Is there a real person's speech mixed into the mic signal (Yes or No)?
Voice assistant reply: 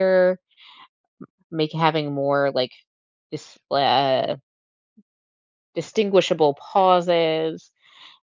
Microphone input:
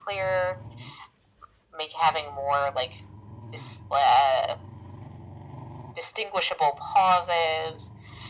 No